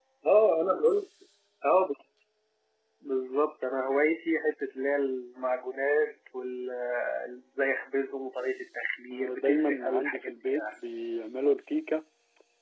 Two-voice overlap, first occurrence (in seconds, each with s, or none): 9.1 s